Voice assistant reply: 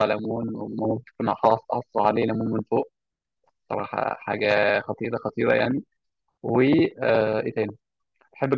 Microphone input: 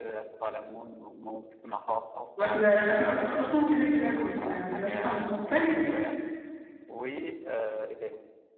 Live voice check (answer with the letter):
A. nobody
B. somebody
B